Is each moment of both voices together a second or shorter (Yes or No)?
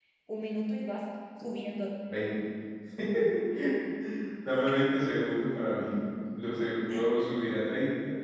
Yes